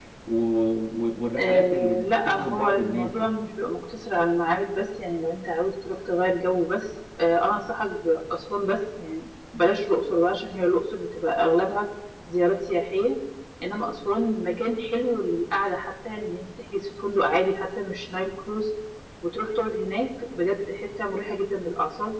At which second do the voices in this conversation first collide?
1.4 s

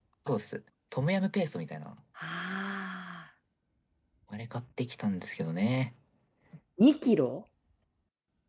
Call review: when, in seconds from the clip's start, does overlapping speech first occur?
none

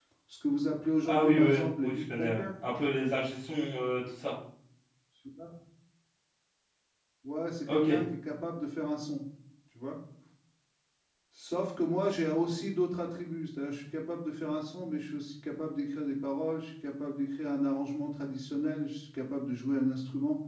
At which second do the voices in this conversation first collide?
1.1 s

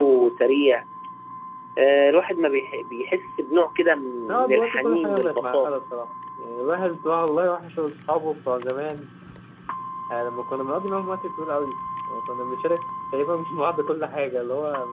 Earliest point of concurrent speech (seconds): 4.3 s

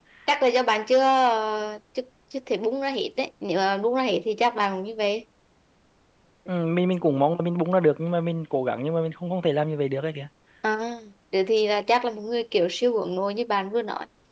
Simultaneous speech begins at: none

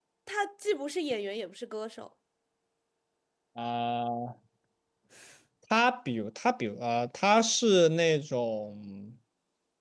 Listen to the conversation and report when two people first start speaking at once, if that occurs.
none

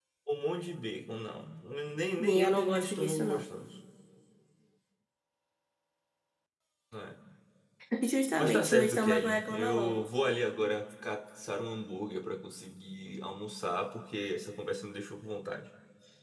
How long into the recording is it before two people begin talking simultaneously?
2.2 s

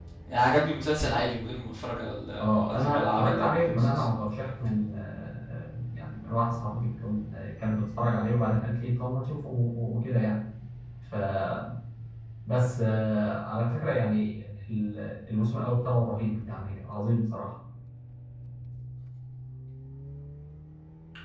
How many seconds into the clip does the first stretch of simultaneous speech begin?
2.4 s

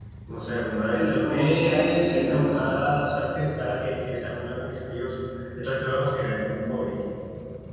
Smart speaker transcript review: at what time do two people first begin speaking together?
0.9 s

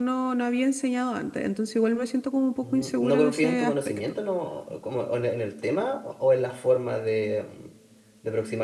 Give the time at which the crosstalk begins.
2.6 s

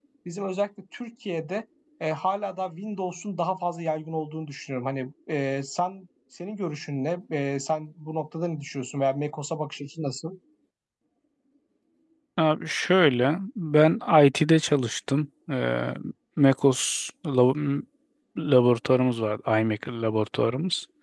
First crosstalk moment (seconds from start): none

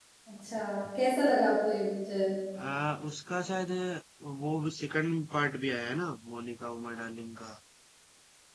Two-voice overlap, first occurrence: none

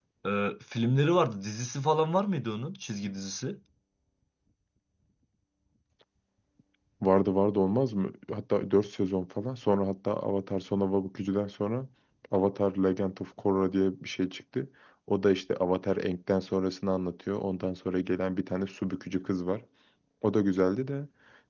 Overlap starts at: none

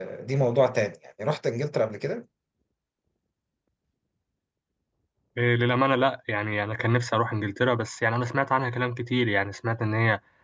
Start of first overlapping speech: none

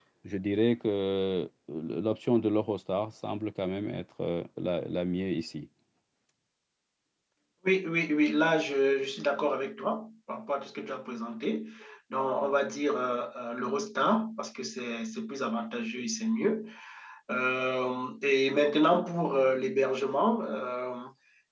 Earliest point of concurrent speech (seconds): none

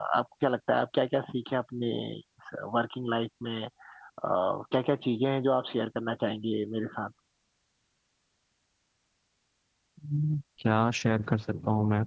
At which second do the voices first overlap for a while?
none

